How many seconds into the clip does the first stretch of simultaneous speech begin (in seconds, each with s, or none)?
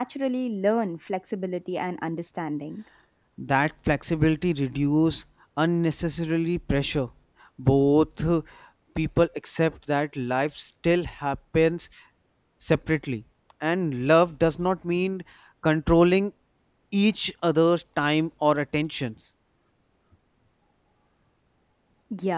none